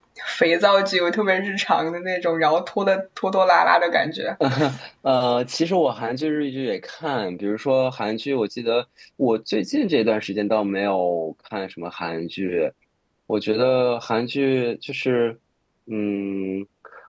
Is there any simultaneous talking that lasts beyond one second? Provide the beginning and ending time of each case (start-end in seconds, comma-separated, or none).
none